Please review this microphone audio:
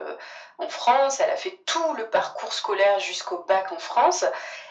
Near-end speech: none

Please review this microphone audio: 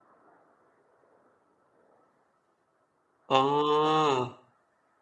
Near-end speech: present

